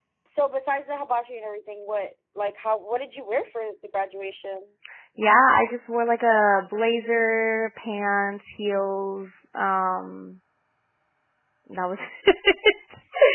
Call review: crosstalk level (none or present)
none